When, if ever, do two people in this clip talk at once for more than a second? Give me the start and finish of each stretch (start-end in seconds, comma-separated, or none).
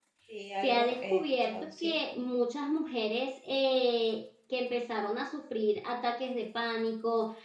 0.6-2.0